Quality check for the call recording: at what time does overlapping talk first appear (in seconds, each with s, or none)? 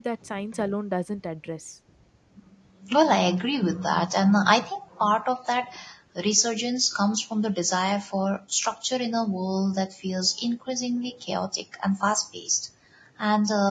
none